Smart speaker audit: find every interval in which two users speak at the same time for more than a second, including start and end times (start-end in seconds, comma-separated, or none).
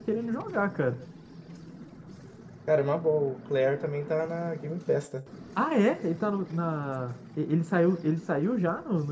none